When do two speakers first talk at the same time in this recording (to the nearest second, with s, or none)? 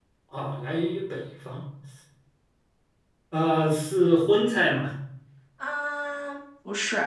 none